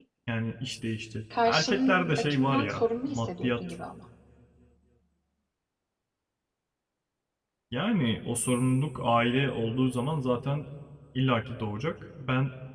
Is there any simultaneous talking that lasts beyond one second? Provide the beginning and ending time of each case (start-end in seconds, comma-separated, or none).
1.4-3.8